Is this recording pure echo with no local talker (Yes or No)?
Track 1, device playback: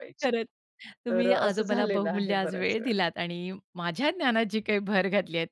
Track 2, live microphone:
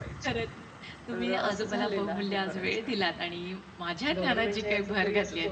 No